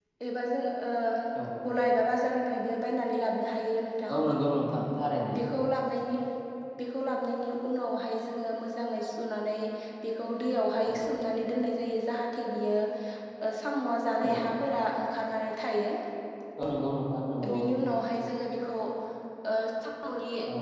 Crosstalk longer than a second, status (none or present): none